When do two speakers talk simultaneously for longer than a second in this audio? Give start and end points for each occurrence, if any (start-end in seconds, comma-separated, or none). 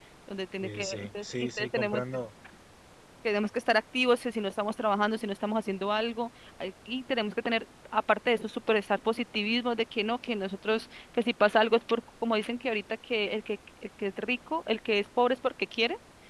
0.6-2.0